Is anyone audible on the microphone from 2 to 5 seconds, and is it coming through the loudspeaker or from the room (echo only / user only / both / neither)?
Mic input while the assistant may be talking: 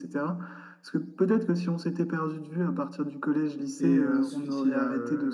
both